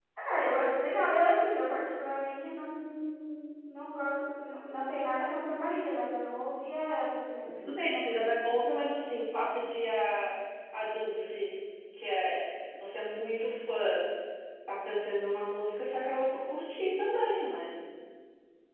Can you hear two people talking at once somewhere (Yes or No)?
No